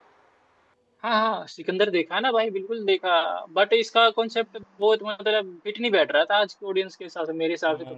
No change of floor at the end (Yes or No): No